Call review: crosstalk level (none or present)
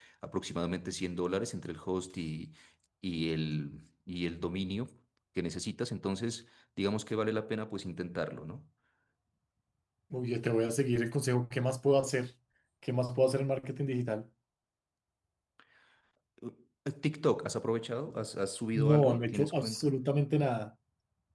present